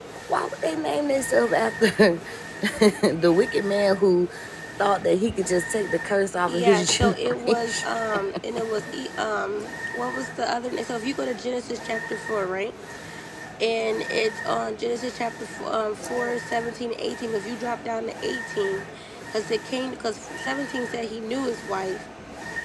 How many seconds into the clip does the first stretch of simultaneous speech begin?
6.5 s

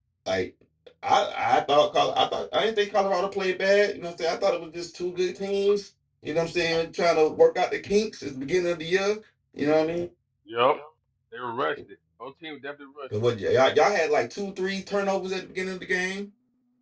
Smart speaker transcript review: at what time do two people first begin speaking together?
none

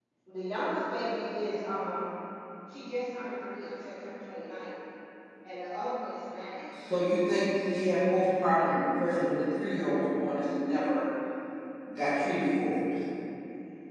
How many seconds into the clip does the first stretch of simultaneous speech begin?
none

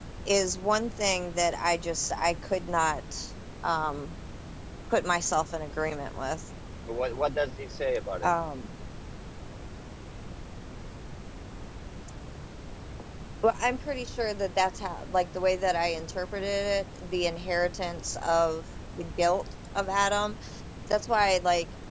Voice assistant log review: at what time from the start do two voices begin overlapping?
none

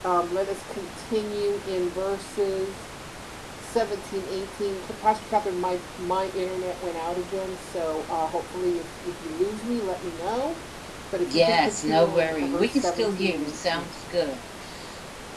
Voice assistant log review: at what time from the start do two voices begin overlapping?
11.3 s

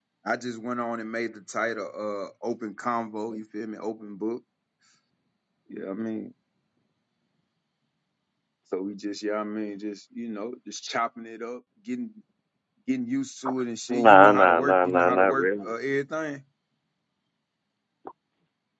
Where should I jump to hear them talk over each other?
13.9 s

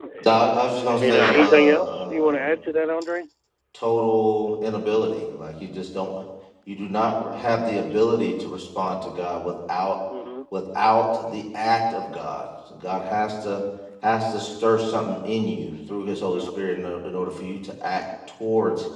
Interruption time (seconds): 1.0 s

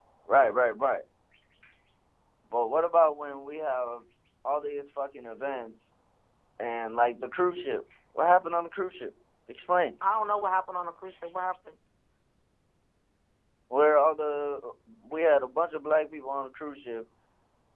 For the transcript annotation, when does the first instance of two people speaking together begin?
none

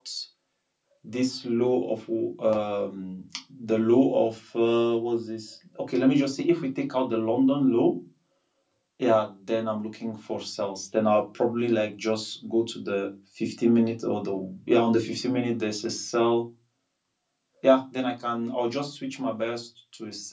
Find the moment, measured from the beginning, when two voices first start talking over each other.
none

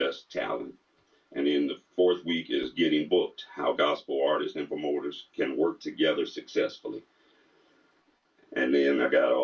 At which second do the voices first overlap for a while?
none

